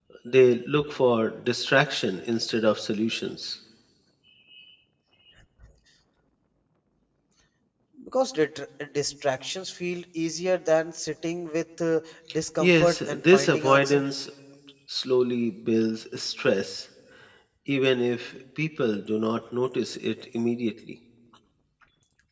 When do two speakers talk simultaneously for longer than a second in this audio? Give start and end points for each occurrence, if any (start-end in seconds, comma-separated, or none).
12.6-14.0